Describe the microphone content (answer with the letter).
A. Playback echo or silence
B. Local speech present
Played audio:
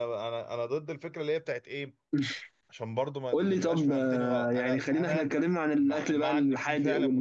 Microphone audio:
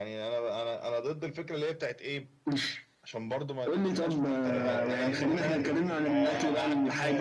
B